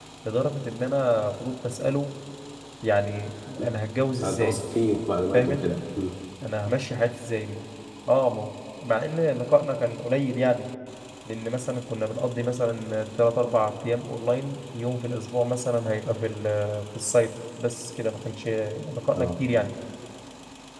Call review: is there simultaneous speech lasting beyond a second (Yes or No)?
No